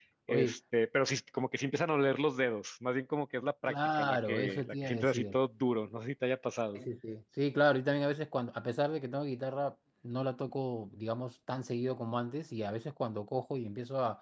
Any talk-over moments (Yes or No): Yes